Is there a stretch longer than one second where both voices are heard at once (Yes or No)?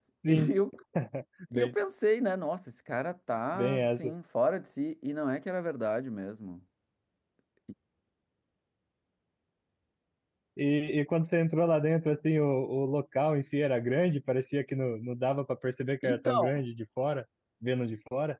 No